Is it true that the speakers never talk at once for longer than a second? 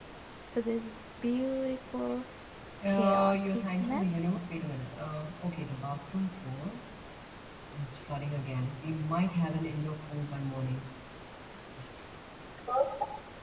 No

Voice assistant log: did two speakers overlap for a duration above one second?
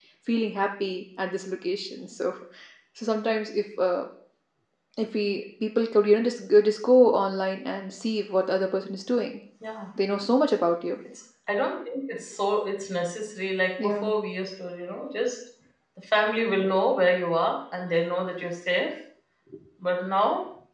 No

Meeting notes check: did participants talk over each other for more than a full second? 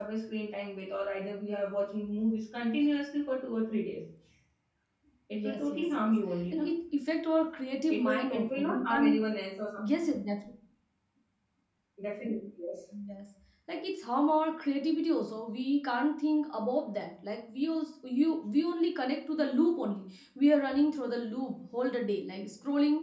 Yes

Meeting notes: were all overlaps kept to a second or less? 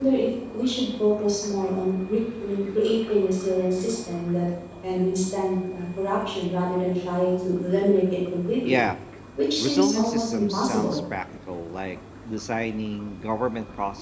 No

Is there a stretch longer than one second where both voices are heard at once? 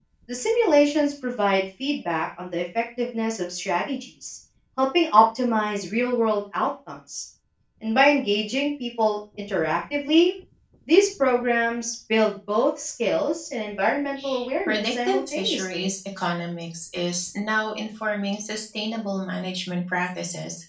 Yes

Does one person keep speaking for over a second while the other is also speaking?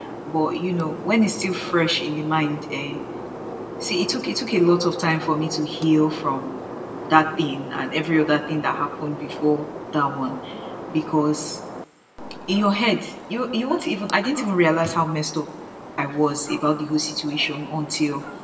No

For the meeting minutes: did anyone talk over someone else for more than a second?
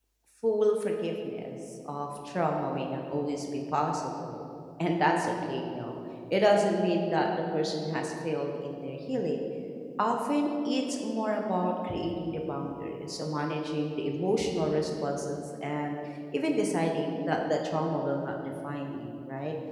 No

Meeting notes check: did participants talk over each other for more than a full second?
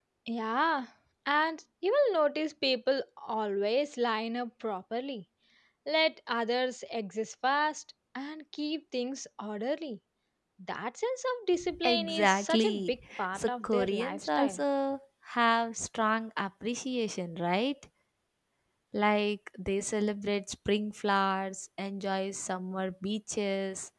Yes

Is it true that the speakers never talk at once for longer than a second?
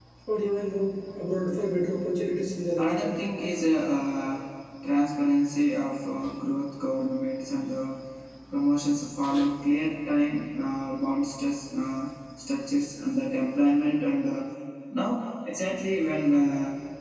Yes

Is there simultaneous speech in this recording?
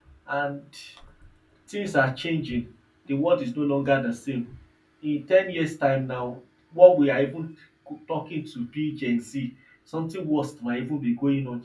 No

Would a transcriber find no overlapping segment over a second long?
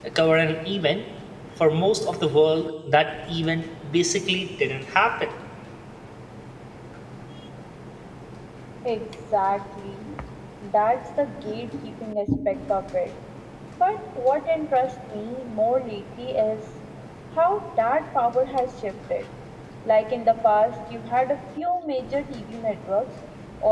Yes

